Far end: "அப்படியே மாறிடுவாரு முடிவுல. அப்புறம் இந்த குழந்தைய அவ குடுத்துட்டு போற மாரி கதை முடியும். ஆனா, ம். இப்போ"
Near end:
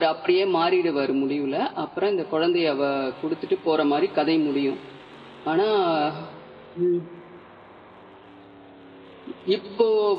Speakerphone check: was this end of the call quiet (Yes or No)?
Yes